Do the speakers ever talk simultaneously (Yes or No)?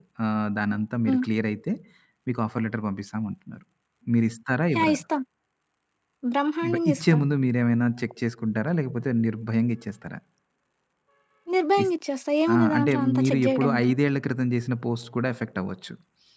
Yes